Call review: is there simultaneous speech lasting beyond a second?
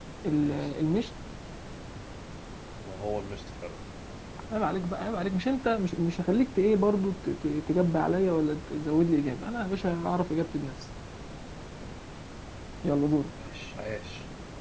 No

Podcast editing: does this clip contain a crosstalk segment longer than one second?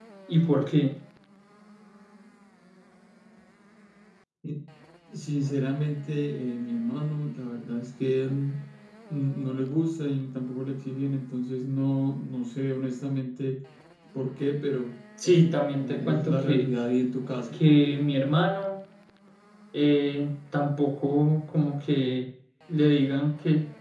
Yes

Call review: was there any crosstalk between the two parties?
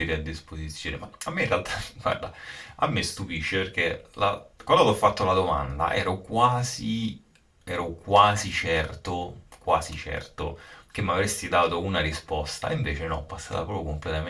No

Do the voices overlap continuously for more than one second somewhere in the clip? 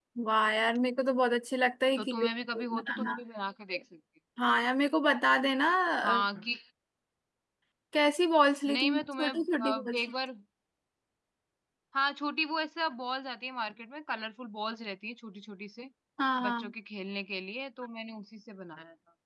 Yes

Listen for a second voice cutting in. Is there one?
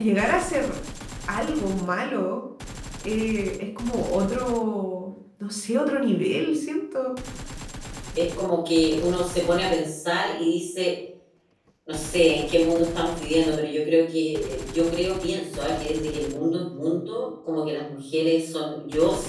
No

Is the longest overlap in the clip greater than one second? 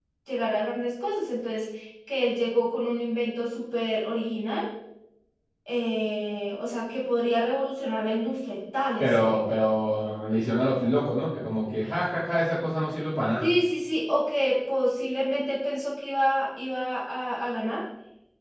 No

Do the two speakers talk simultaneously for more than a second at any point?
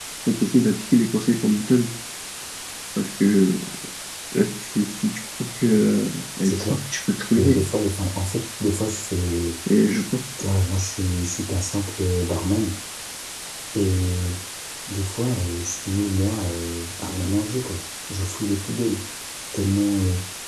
No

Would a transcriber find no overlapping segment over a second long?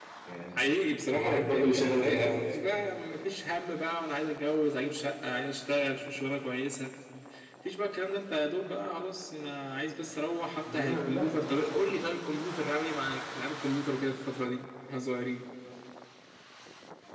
No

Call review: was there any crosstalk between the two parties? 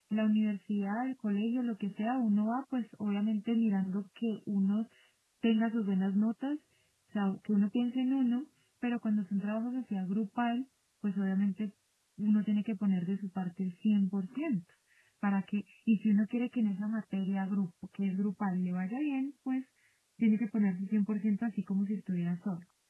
No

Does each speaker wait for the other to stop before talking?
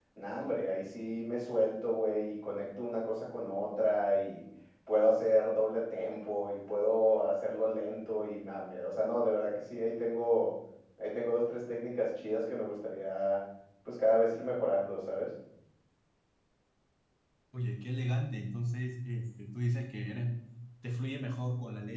Yes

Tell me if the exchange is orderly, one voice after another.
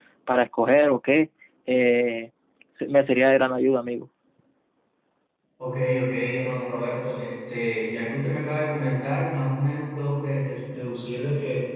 Yes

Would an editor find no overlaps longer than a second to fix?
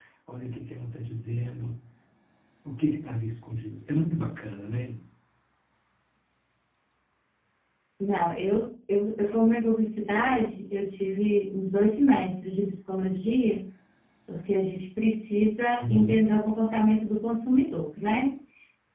Yes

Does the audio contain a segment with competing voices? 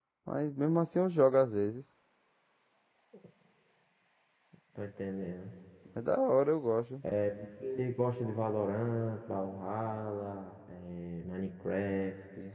No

